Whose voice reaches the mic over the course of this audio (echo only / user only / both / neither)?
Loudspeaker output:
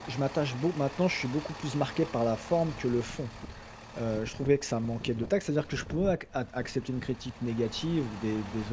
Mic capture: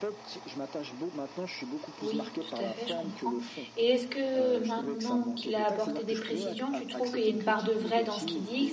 both